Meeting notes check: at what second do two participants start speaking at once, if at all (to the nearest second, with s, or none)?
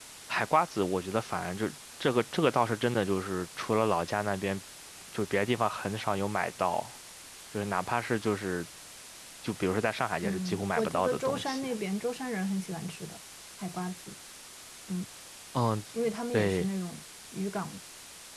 10 s